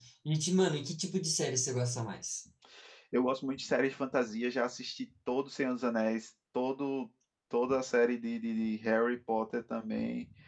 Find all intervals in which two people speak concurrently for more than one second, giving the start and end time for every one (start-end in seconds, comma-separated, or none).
none